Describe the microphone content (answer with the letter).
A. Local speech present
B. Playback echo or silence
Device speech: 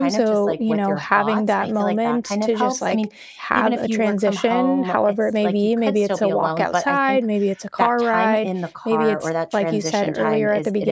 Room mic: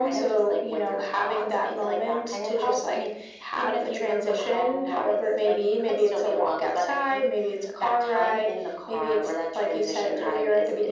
B